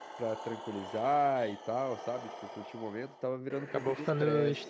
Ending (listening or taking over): taking over